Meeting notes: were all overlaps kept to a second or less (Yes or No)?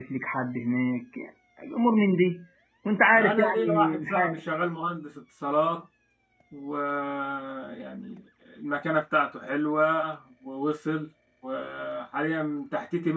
No